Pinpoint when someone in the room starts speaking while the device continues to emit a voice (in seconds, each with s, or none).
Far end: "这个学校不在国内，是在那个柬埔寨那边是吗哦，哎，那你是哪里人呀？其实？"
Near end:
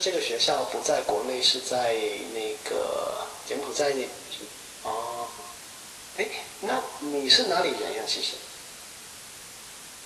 none